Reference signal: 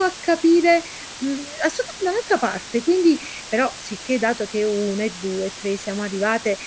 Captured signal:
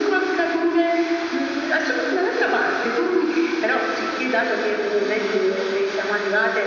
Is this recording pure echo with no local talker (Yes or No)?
Yes